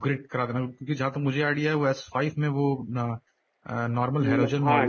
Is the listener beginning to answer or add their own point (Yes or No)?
Yes